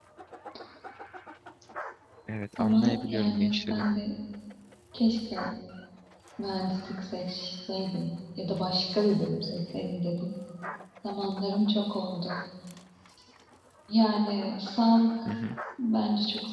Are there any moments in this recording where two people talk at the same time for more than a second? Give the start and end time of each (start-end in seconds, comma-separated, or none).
2.6-3.8